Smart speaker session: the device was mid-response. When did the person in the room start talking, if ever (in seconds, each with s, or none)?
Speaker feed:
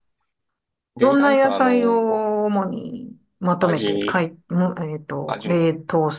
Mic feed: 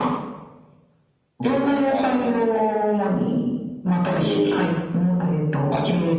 none